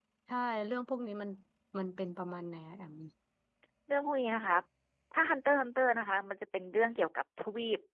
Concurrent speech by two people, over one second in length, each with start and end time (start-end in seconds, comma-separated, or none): none